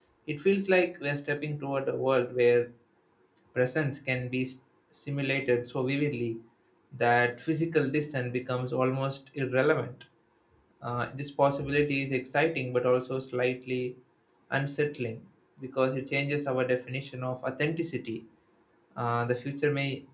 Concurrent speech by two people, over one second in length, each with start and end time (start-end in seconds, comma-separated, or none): none